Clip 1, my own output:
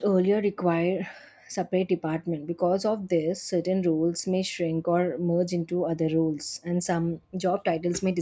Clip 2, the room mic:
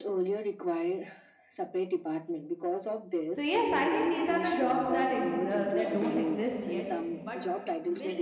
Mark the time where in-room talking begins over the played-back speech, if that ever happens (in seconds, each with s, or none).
3.3 s